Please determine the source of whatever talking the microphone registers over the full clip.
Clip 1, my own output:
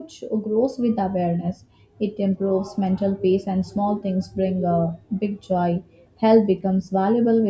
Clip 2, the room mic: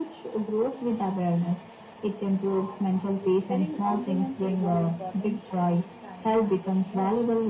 both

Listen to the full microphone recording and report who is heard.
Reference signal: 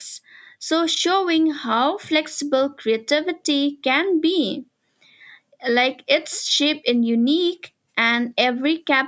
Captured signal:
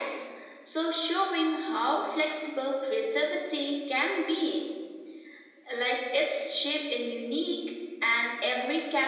echo only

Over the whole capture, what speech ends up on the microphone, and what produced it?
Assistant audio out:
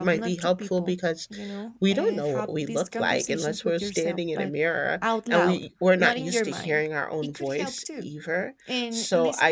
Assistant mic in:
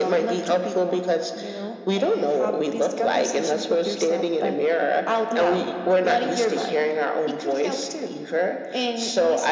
echo only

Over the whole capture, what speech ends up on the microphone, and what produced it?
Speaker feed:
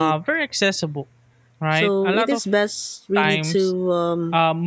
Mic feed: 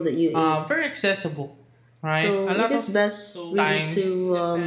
both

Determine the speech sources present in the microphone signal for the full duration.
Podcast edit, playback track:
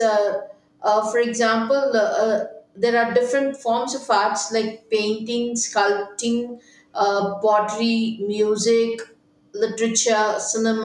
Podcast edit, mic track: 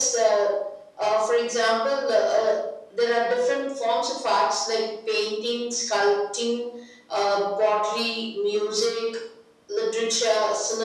echo only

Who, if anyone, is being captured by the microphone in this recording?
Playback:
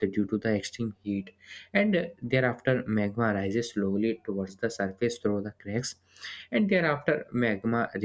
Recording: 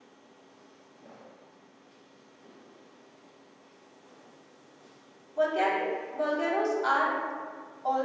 user only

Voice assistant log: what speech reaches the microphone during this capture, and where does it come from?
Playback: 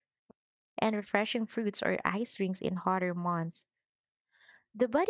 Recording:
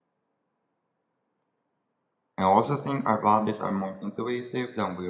user only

